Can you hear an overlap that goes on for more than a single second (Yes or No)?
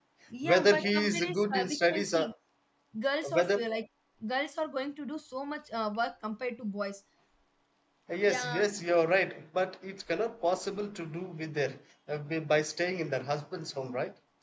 Yes